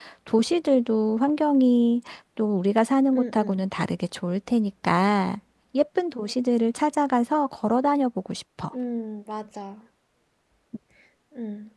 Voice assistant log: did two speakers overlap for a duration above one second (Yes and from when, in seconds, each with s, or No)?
No